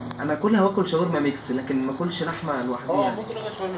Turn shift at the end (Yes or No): Yes